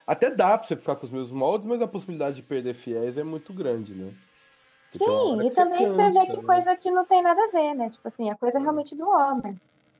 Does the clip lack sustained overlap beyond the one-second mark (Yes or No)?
No